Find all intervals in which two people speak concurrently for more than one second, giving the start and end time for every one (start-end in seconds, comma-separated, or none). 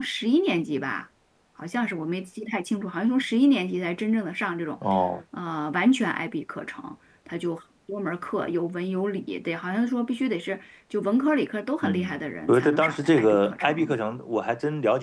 11.8-13.9